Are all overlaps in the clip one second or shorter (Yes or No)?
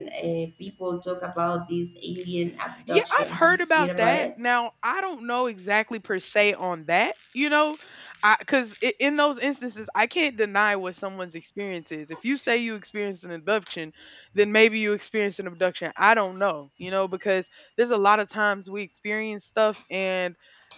No